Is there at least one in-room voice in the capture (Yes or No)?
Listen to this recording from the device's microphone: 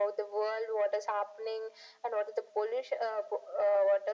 No